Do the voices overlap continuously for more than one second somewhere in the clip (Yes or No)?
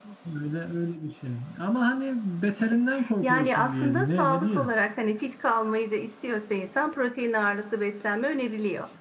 Yes